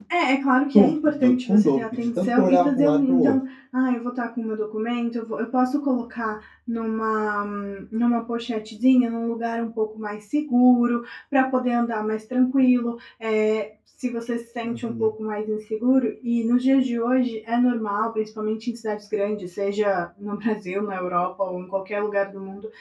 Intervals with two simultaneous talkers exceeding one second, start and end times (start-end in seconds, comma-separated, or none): 0.7-3.4